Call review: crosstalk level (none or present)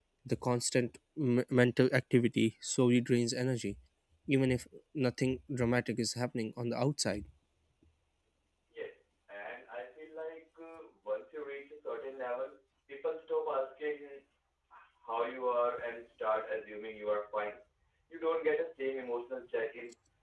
none